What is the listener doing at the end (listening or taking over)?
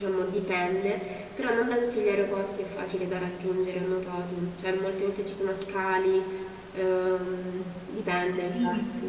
taking over